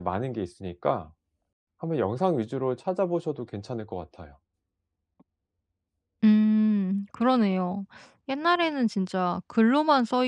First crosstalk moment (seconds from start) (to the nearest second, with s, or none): none